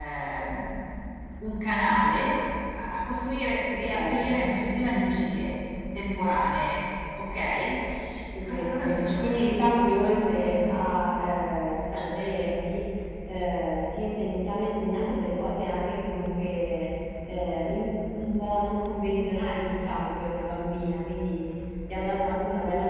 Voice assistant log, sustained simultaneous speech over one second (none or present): present